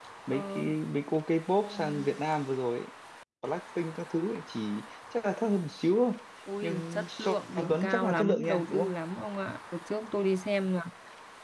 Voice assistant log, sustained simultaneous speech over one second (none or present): present